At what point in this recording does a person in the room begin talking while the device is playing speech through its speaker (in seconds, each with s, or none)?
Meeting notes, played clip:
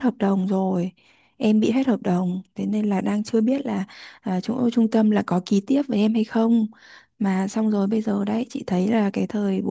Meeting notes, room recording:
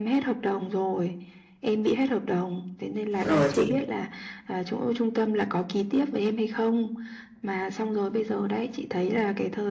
3.3 s